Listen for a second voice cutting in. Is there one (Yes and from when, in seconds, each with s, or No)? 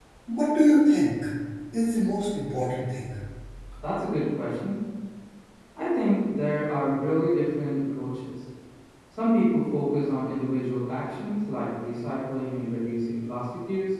No